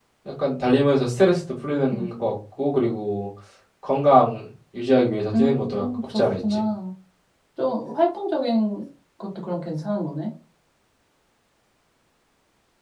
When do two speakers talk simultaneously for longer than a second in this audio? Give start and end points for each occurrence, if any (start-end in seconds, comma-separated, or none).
5.3-6.6